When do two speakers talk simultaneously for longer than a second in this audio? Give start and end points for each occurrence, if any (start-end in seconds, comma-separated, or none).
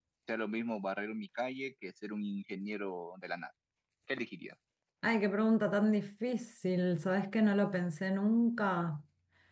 none